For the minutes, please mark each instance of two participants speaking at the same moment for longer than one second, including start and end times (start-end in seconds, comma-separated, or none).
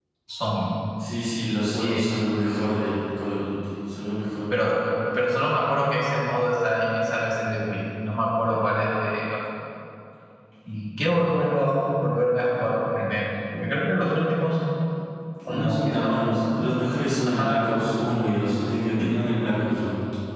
15.5-16.7